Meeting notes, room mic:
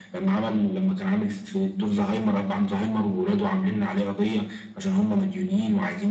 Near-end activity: none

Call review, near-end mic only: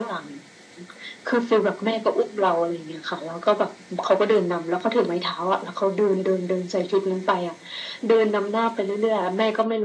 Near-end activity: none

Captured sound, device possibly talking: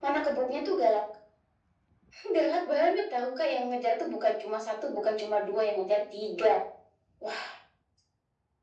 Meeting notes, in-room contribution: none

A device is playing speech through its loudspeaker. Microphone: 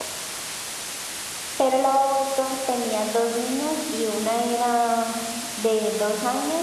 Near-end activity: present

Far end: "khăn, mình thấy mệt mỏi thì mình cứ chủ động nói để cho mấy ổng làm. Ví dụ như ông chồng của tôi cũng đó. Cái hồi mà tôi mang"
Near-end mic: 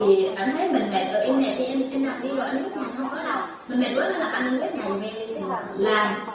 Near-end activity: present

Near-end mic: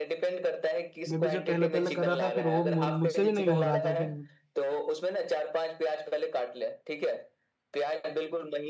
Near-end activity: present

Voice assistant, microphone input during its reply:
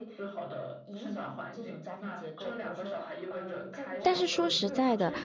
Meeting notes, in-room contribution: present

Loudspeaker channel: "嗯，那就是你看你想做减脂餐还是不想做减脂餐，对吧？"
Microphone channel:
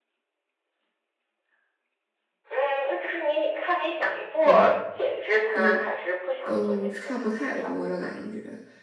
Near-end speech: present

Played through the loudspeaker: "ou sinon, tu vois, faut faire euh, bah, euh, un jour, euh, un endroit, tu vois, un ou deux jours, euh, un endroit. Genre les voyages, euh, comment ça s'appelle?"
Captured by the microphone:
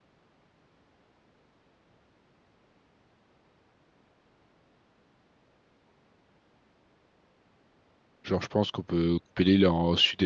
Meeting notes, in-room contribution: present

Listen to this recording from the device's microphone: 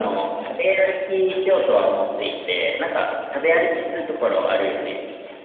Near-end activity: none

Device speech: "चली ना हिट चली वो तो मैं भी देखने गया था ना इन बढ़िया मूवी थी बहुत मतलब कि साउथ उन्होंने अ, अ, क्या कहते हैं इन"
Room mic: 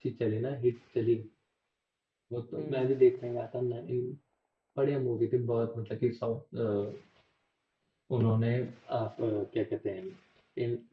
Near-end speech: present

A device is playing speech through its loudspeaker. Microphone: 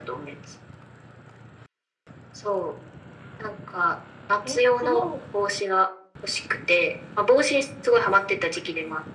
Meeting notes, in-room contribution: present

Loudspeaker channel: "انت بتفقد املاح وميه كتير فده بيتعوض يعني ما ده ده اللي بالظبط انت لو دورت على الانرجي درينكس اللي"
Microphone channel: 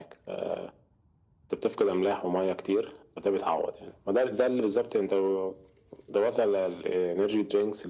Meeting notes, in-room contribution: none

